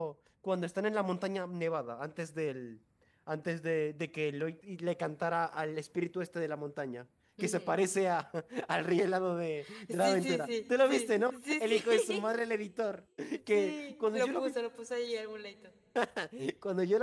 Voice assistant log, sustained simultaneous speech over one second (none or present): present